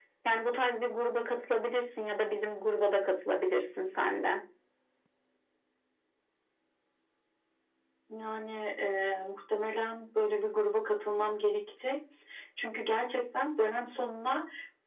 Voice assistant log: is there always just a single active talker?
Yes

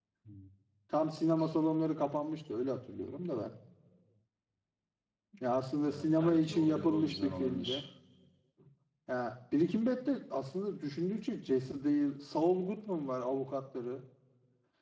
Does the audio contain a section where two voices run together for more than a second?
Yes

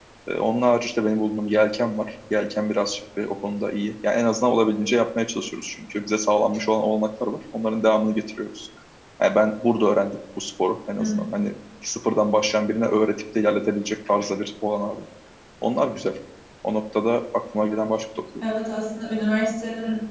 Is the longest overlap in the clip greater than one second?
No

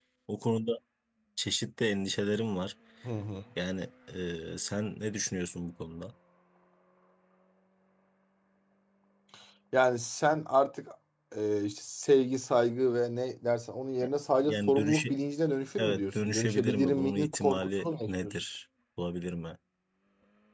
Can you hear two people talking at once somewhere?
Yes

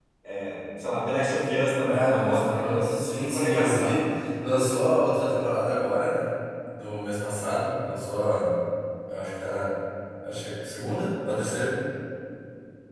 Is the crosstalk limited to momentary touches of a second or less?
No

